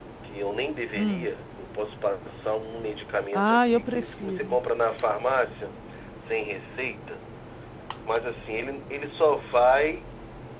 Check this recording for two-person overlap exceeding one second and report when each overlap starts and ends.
3.3-4.6

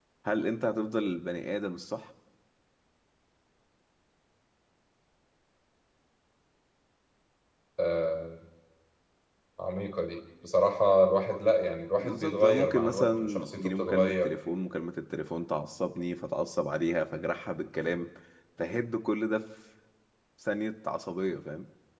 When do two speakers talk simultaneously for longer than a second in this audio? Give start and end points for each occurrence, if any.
12.0-14.3

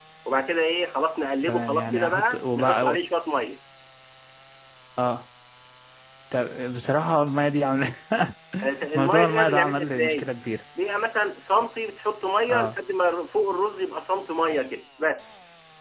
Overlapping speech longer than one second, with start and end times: 1.5-3.0, 8.9-10.3

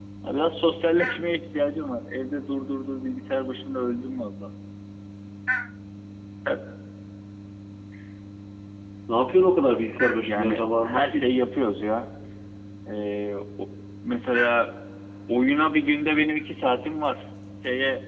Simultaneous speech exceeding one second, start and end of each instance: 10.2-11.4

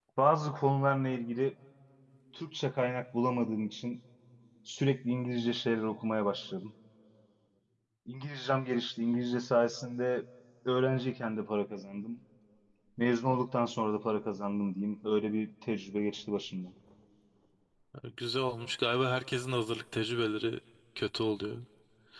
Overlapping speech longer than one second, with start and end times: none

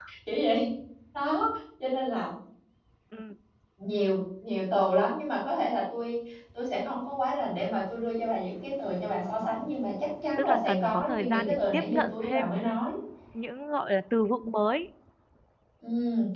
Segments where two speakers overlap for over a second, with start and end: 10.4-12.5

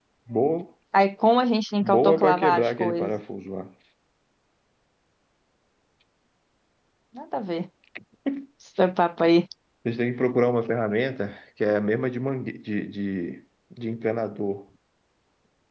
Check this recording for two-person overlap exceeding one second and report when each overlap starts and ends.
1.8-3.1

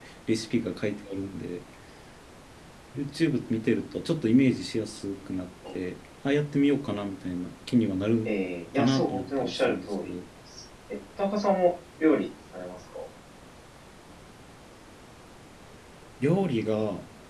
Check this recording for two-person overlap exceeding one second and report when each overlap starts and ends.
8.8-10.2

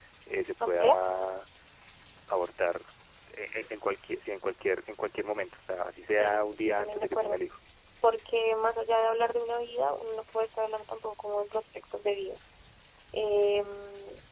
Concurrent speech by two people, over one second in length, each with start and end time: 6.1-7.4

